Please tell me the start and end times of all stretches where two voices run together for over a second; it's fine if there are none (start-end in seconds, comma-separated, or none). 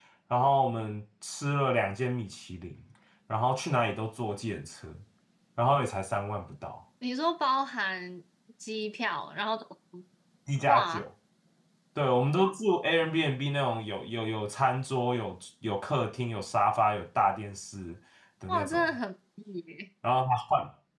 none